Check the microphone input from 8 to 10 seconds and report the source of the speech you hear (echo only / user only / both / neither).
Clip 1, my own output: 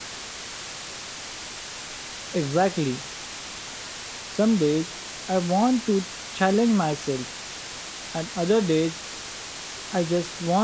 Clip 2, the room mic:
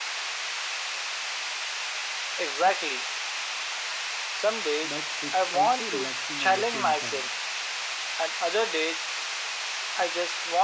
echo only